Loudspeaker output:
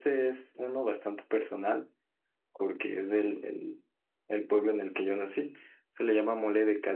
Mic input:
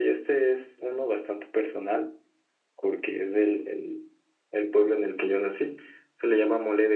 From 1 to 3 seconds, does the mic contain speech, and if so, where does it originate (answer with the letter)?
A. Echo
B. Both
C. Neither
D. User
A